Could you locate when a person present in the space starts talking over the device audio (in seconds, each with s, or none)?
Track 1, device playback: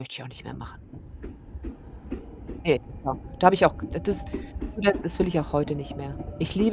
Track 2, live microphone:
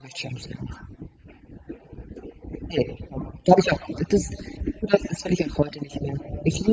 none